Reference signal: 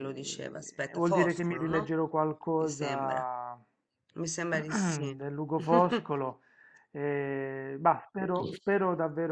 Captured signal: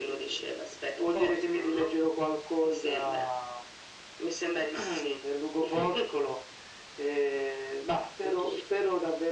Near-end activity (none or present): none